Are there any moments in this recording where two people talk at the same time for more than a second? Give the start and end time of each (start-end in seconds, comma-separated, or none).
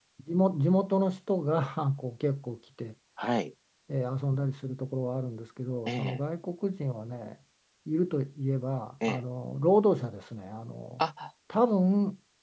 none